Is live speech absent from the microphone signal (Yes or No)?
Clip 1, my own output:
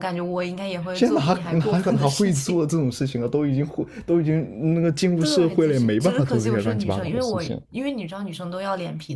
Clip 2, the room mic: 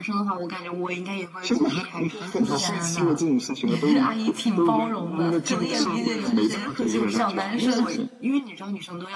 No